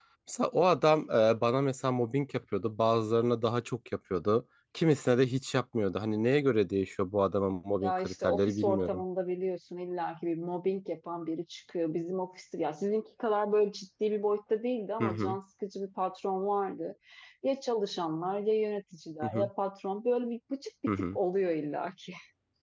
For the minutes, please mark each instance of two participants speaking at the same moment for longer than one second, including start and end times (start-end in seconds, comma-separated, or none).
7.8-9.0